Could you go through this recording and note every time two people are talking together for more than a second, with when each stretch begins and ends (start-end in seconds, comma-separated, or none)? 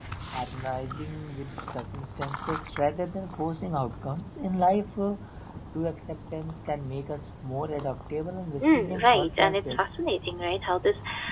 8.6-9.8